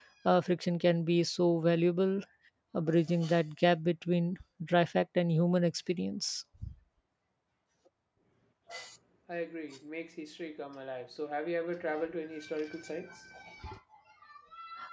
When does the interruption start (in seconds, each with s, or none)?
none